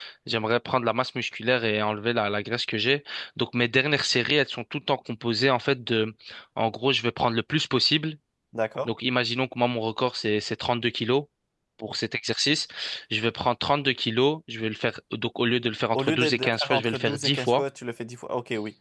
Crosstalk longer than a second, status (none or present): present